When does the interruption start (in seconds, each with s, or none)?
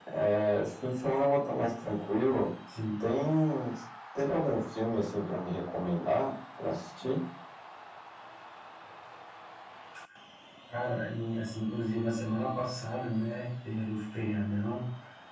none